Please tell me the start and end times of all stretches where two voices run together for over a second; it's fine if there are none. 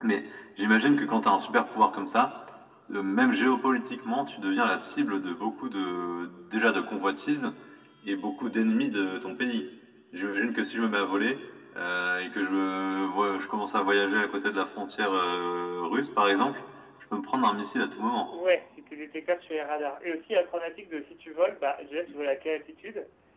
none

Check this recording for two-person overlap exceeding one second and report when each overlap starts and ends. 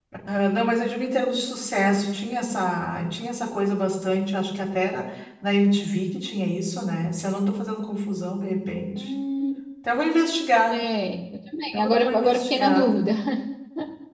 11.7-13.0

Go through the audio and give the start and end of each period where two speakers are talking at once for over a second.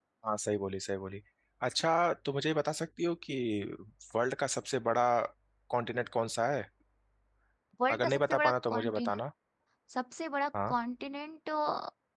7.9-9.1

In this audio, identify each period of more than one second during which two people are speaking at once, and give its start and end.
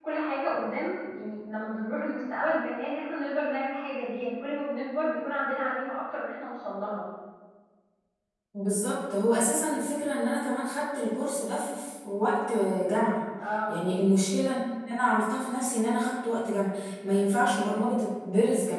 none

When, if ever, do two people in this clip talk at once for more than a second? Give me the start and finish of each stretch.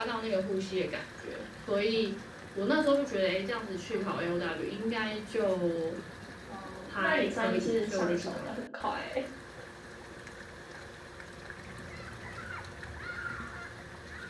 7.0-8.5

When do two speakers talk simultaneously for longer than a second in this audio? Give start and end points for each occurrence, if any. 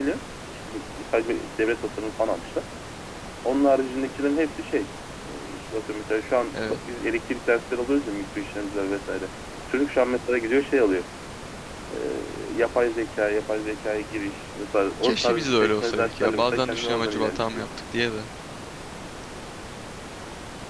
15.0-17.6

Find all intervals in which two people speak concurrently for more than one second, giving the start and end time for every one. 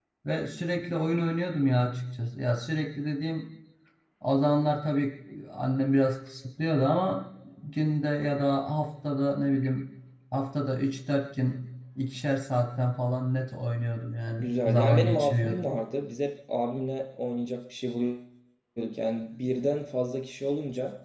14.4-15.7

